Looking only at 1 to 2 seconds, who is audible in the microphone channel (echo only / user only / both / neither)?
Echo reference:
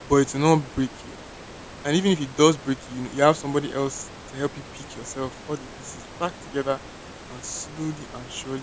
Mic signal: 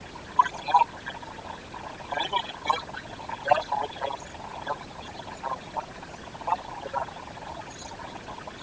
echo only